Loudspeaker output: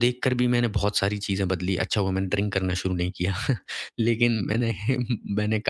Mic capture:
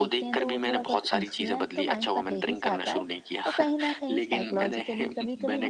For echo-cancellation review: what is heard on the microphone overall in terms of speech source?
both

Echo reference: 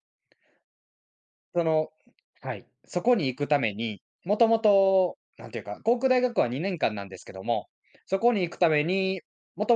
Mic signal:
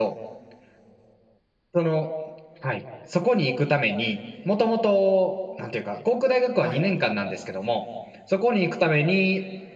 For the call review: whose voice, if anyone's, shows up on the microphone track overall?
both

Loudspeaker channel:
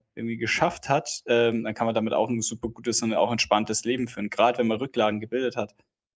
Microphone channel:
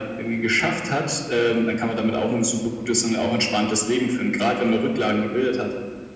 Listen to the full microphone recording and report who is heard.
echo only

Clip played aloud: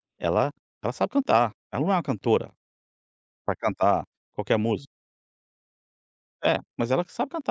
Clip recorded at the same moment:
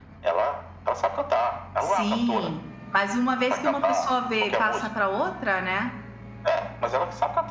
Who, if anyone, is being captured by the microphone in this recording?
both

